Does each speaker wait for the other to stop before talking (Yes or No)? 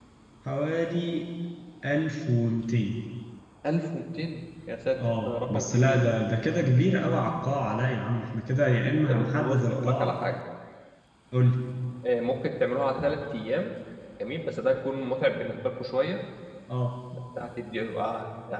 No